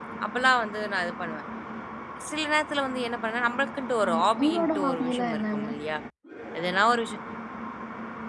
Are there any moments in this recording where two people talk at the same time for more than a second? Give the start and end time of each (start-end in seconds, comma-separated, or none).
4.1-5.7